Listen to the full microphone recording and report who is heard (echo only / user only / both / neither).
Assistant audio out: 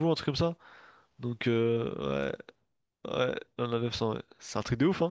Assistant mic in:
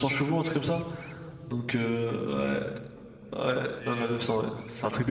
both